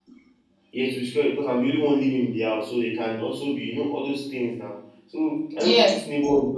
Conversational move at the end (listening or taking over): listening